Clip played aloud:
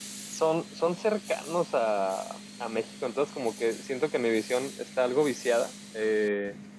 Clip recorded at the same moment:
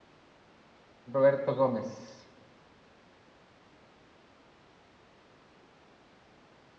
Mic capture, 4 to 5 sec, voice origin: neither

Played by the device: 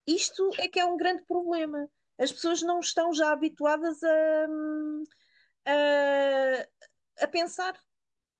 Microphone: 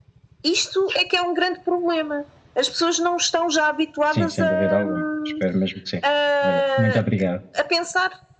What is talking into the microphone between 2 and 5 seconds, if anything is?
both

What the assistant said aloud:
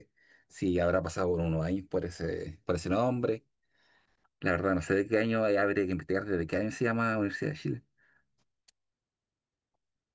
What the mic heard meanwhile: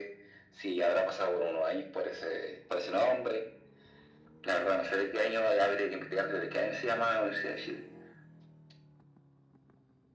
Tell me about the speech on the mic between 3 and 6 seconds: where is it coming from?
echo only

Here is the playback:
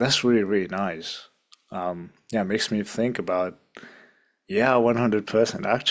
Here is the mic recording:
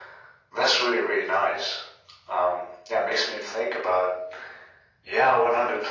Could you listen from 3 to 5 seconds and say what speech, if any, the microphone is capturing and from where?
echo only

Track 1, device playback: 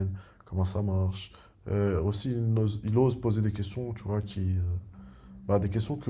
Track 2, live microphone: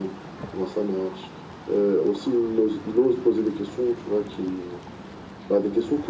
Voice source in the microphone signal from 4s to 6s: echo only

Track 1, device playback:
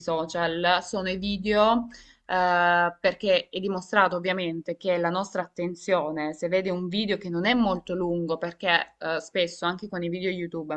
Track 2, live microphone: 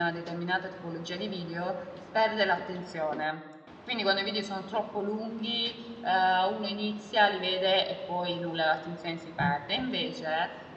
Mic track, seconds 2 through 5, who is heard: user only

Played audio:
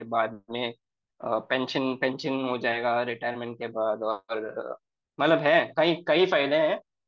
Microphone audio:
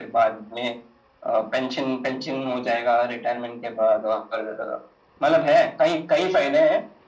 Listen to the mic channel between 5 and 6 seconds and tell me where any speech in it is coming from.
echo only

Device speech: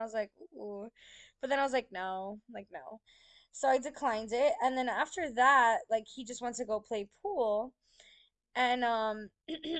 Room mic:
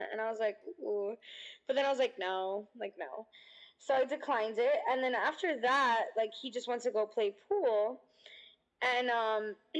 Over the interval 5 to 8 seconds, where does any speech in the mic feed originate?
echo only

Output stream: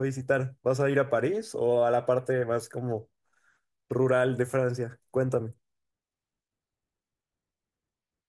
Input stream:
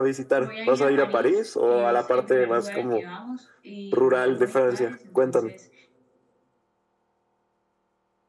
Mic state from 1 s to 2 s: both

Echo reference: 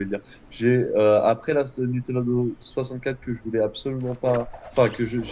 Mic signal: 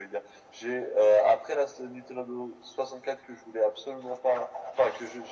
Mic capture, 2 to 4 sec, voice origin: echo only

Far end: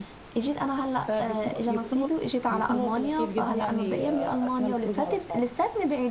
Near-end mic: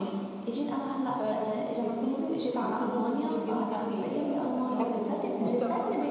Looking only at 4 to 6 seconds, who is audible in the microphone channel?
both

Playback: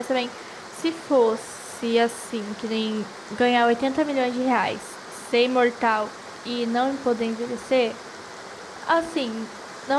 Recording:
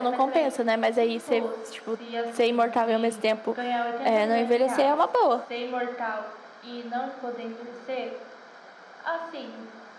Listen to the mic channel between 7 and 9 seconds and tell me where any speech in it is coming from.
echo only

